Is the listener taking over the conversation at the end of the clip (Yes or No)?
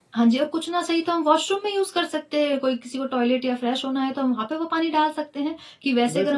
Yes